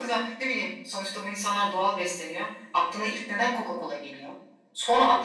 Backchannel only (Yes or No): Yes